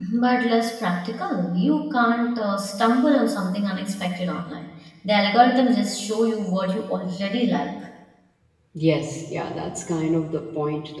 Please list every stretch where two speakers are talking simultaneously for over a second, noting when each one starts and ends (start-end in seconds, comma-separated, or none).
none